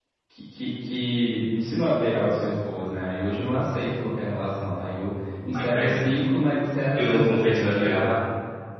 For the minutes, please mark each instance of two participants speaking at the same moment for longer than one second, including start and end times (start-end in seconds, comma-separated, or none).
6.9-8.2